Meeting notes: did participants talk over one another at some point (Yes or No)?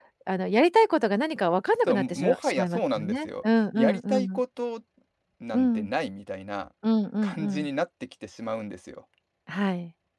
Yes